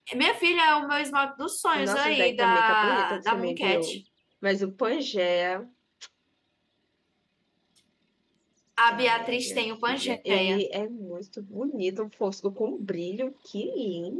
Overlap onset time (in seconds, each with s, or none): 1.8 s